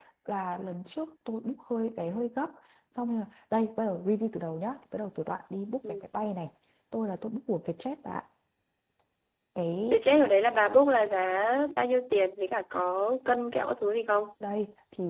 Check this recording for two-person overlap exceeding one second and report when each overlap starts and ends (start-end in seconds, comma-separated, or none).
none